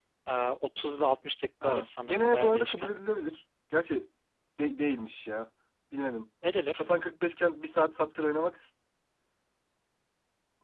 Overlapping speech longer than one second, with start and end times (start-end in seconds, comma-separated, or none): 1.6-2.9